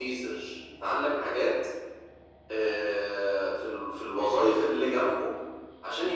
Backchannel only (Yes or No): Yes